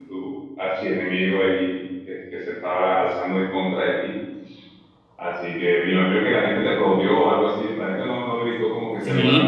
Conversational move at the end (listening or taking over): taking over